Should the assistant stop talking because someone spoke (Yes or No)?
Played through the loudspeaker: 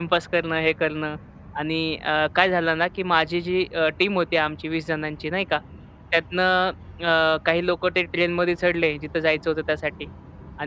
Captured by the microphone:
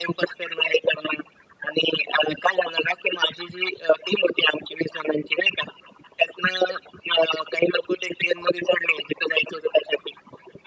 No